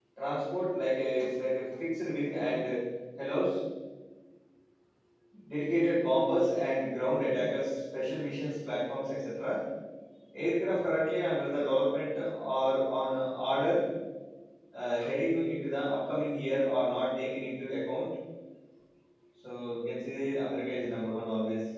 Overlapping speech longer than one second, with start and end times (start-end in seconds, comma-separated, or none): none